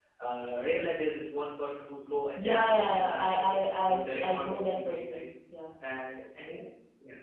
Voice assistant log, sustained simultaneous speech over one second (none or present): present